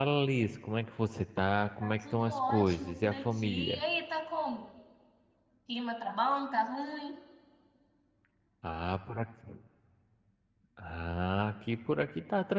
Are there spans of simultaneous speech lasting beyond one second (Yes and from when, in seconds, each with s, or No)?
Yes, from 1.8 s